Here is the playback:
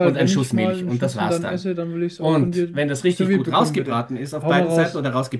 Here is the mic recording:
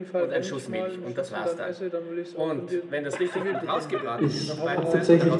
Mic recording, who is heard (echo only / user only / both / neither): both